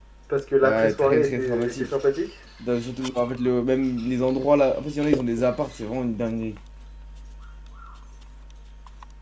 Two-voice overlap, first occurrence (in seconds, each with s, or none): 0.6 s